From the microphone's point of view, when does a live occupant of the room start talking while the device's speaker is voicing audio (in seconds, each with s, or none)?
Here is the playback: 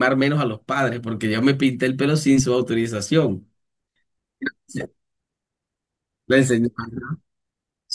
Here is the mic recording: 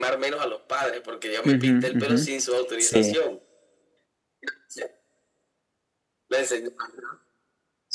1.4 s